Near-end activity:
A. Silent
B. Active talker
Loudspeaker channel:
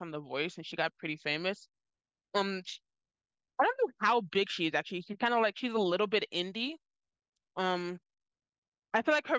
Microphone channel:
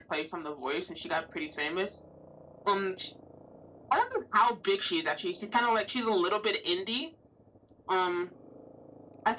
A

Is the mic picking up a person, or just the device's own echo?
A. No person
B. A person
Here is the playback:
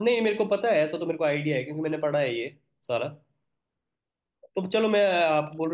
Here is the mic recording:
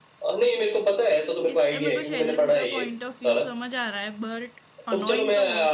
B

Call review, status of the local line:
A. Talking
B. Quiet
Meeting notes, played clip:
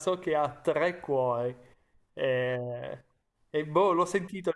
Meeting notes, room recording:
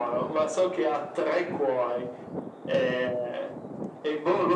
B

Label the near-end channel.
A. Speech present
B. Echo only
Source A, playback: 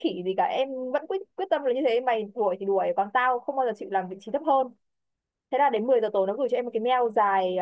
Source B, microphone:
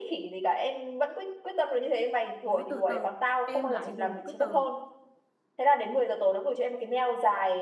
A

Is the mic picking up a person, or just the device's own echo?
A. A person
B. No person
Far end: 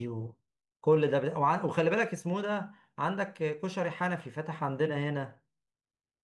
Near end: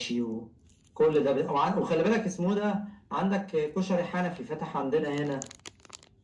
B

